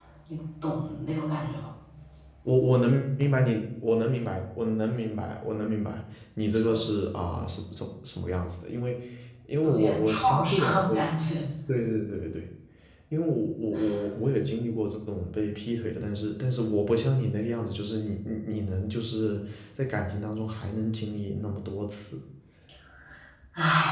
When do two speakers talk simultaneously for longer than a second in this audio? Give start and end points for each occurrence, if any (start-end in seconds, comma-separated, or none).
9.6-11.0